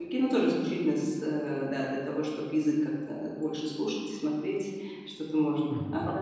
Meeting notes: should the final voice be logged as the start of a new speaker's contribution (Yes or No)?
Yes